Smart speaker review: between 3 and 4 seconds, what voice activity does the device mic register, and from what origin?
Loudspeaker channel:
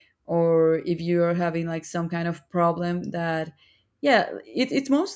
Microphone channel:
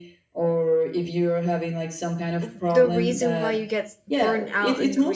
both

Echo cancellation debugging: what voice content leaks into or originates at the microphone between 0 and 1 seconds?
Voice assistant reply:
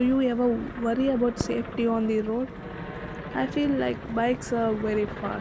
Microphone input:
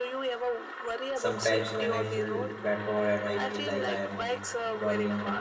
echo only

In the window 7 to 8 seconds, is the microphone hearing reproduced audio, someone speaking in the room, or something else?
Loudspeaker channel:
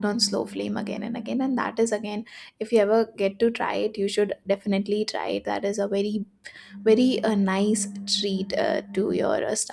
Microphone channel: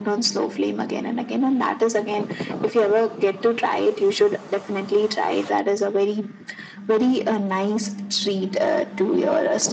echo only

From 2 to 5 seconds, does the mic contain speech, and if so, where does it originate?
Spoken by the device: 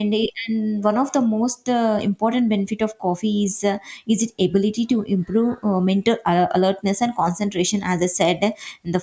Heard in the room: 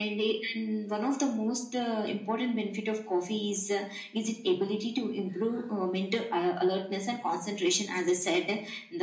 echo only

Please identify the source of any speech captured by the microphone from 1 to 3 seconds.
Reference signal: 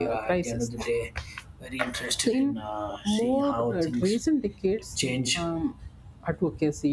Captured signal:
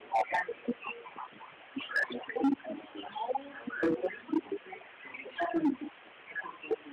echo only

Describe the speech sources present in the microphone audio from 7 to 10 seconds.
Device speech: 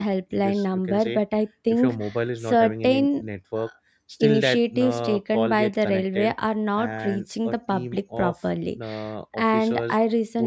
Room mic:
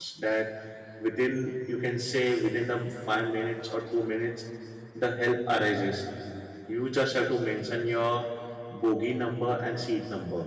user only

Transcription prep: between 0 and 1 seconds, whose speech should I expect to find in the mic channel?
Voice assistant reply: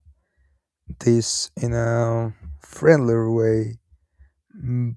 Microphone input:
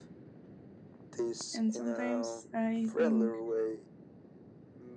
neither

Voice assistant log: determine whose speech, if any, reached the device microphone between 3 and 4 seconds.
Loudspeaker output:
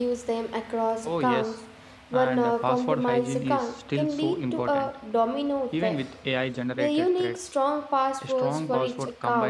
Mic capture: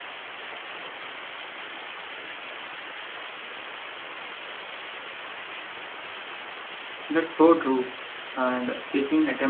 neither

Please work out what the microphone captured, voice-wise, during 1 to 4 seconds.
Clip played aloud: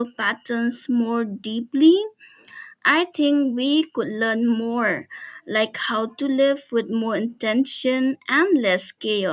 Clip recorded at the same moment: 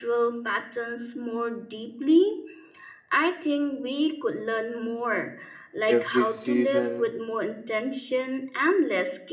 echo only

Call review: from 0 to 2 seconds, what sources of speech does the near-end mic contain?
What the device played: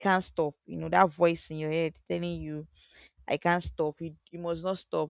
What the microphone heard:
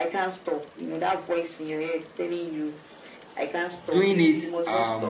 echo only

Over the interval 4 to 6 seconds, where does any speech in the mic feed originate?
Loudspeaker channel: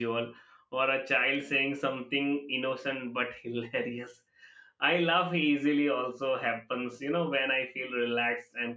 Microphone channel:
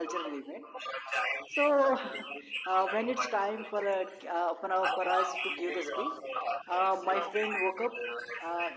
both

